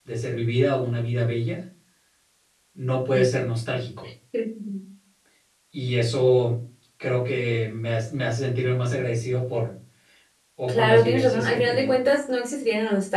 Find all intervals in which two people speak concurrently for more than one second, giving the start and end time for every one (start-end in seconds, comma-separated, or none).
10.7-12.0